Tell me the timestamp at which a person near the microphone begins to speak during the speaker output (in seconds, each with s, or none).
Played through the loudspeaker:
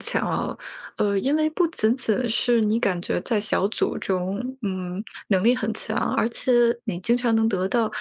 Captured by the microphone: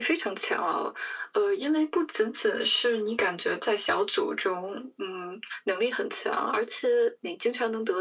none